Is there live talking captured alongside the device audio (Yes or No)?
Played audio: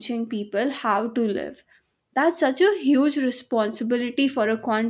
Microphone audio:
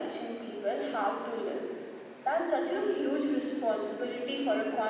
No